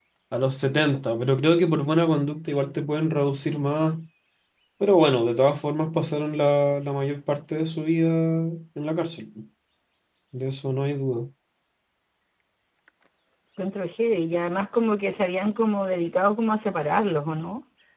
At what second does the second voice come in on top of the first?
none

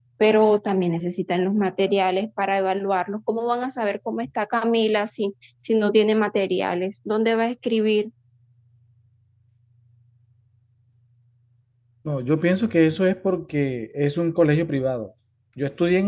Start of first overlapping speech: none

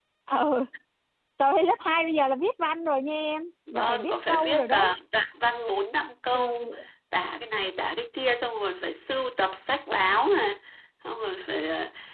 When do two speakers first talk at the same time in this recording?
3.7 s

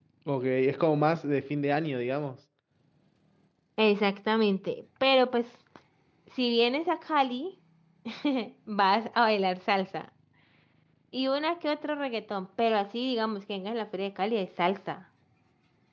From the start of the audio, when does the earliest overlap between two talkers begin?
none

